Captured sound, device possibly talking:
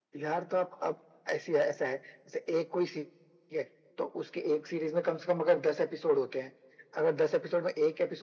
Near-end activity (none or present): none